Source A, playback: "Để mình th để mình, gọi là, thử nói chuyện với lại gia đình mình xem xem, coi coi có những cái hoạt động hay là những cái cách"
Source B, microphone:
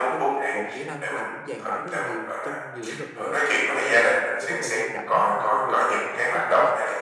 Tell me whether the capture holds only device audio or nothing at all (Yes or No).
No